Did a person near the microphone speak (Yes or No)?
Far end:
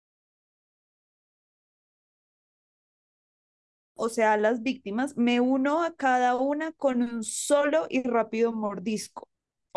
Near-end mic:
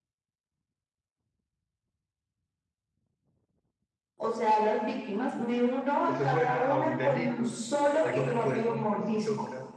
Yes